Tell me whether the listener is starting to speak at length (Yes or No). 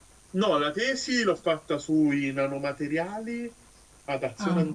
No